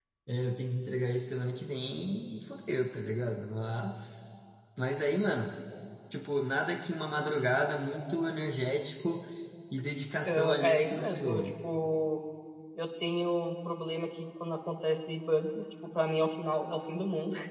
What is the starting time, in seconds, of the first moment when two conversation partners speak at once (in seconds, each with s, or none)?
10.2 s